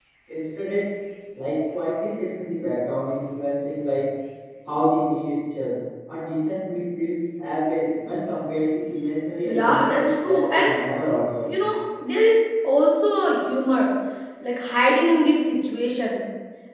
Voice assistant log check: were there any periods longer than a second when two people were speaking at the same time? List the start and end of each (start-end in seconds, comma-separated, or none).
9.4-10.7